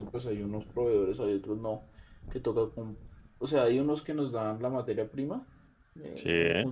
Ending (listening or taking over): listening